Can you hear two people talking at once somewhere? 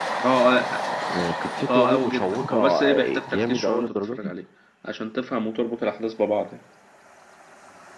Yes, from 1.7 s

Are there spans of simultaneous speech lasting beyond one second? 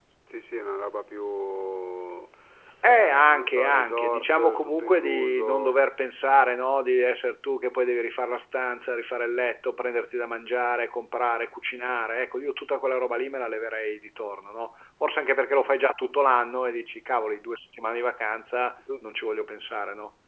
Yes, from 2.8 s

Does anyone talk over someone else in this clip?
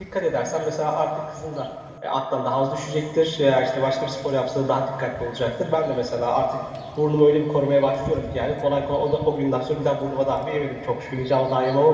No

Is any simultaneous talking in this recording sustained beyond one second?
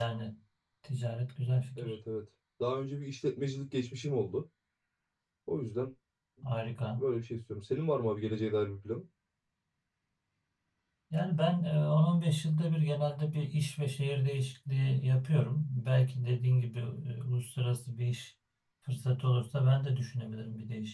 No

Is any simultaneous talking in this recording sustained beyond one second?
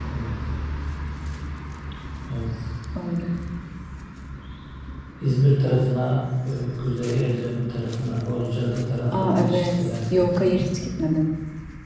Yes, from 9.1 s

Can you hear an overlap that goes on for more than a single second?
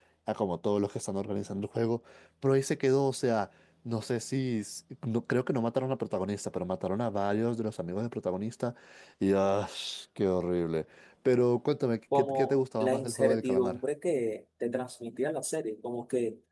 Yes, from 12.1 s

